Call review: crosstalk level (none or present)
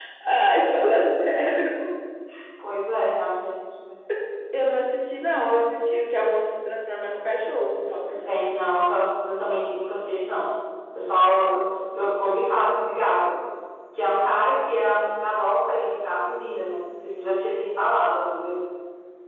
none